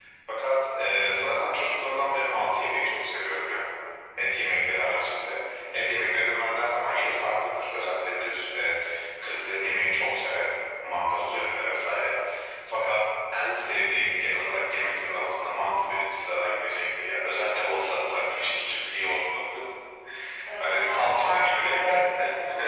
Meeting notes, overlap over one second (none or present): present